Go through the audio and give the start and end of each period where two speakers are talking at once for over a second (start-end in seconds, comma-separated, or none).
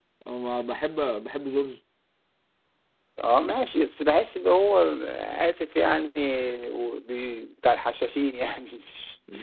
none